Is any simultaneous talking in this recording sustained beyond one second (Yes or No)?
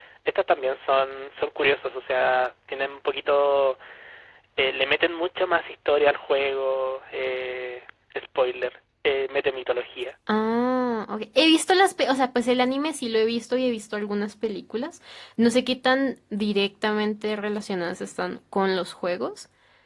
No